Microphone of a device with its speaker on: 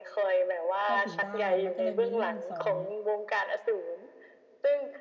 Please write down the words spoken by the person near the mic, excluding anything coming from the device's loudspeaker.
เข้าถึงได้มันก็เลยมีเรื่องสอน

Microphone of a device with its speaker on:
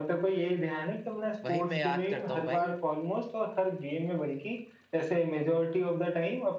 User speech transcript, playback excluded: वही मैं याद करता हूँ भाई

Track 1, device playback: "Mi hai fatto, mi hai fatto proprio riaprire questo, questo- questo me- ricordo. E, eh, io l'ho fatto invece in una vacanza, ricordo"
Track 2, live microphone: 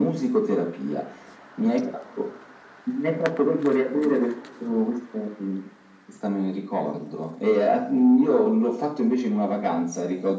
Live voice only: none

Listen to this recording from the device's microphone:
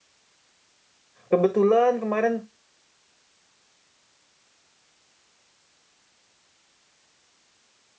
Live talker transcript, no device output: kebetulan kemarin

